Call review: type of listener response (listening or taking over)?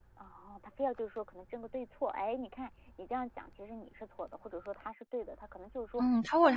taking over